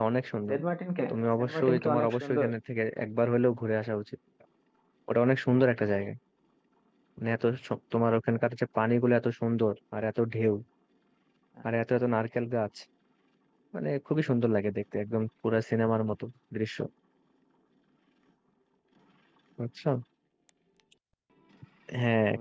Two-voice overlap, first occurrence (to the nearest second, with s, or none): 1 s